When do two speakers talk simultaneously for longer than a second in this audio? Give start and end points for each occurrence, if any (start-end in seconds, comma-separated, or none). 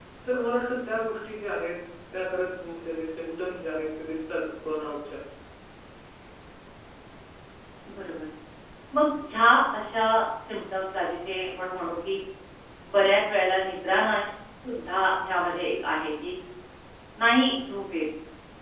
none